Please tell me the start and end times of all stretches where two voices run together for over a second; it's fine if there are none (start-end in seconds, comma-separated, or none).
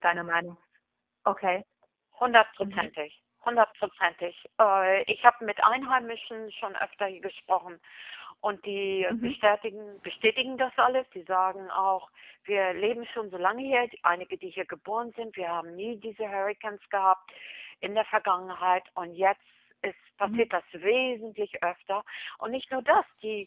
none